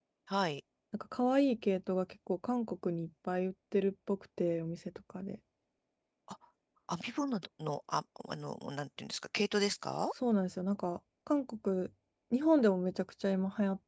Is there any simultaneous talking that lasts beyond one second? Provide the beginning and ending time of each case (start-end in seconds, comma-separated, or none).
none